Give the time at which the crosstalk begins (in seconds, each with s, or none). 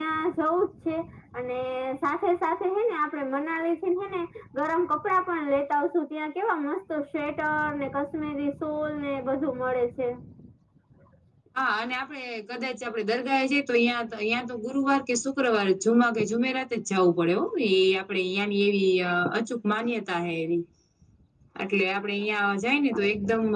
none